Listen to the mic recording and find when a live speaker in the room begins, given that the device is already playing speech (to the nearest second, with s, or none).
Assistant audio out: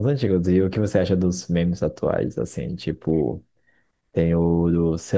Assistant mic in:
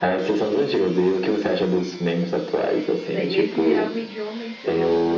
3 s